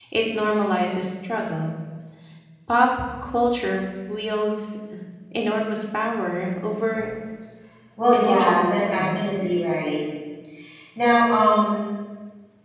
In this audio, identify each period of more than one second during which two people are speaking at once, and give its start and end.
8.1-9.3

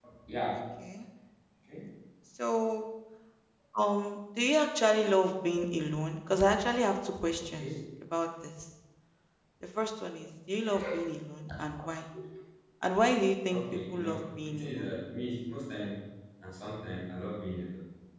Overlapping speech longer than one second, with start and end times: 13.5-14.9

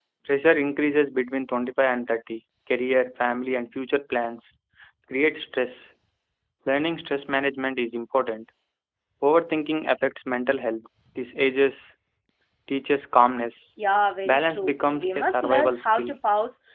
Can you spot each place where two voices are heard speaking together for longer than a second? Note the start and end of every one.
14.2-16.1

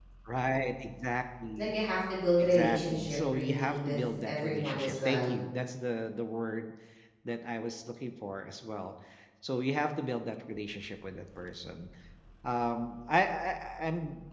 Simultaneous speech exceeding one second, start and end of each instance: 2.4-5.3

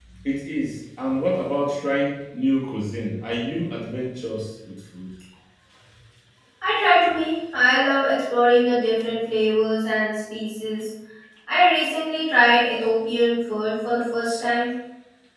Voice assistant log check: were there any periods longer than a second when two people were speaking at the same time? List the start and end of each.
none

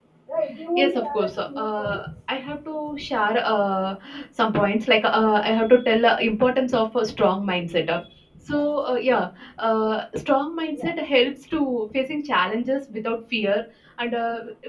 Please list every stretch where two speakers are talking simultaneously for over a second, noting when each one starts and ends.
0.8-2.0

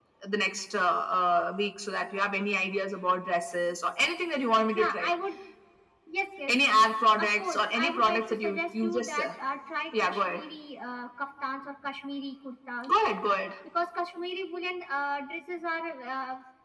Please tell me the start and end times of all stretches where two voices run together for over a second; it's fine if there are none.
7.2-9.3

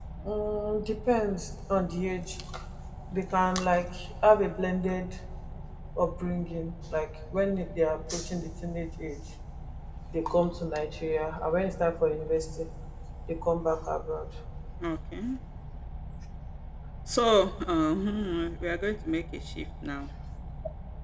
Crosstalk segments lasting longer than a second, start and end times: none

